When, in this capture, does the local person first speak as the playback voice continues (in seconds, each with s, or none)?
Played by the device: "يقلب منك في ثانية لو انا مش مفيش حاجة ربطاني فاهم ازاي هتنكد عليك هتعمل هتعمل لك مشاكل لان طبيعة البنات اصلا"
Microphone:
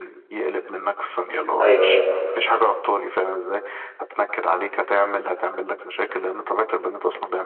1.6 s